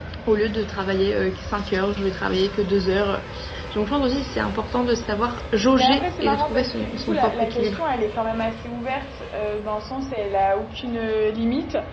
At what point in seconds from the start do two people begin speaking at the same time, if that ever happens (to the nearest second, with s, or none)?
6 s